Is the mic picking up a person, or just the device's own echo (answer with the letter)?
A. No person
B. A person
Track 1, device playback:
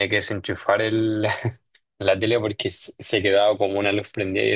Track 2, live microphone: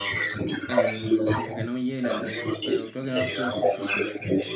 B